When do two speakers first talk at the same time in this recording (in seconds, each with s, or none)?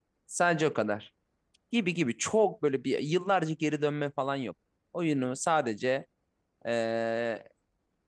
none